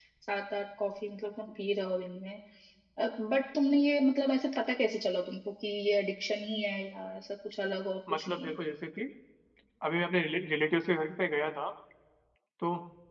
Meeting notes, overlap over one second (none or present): none